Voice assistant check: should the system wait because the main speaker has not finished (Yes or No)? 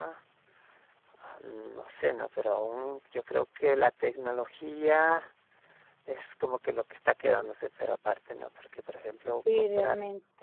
No